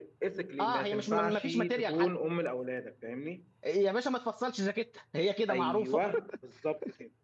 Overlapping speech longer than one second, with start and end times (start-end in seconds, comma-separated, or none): 0.6-2.1